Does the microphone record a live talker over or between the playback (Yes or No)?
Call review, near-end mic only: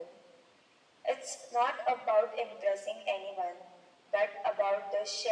No